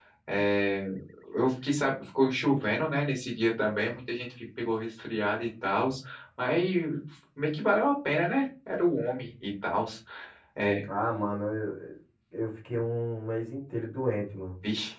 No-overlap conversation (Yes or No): Yes